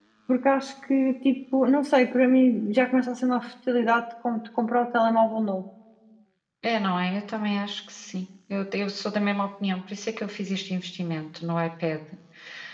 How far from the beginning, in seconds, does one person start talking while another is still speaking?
none

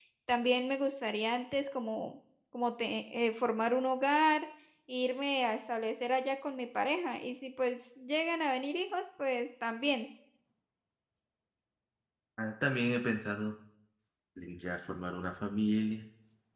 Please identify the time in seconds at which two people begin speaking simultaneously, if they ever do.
none

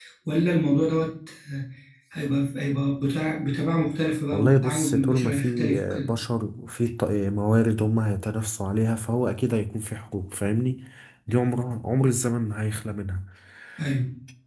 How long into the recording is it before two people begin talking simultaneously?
4.3 s

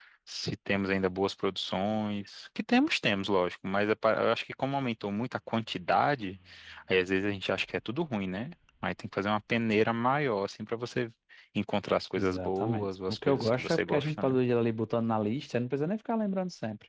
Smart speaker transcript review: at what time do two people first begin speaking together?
12.2 s

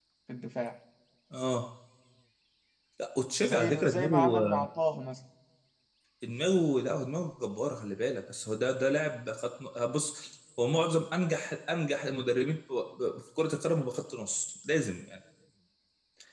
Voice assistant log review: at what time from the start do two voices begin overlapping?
3.4 s

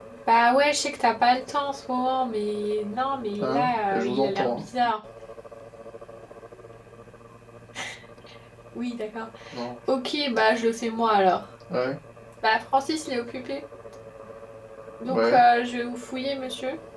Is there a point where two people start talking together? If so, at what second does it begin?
3.4 s

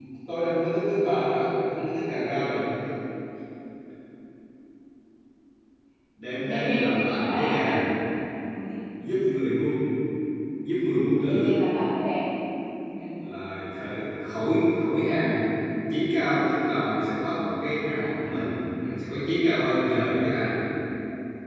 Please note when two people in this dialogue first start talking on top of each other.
6.4 s

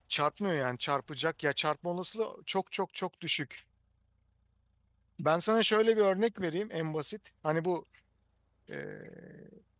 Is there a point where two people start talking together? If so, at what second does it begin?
none

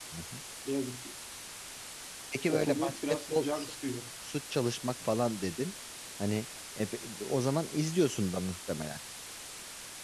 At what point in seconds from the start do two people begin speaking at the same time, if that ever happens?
2.5 s

